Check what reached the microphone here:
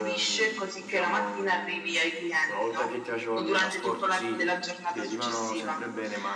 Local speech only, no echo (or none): none